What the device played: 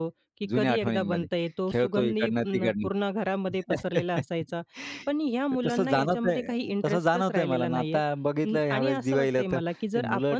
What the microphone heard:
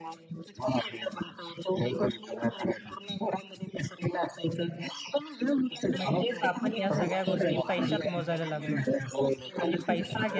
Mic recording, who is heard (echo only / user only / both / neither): both